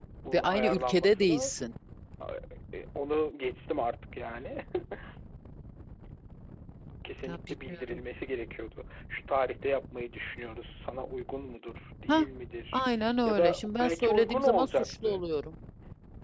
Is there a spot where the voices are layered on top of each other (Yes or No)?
Yes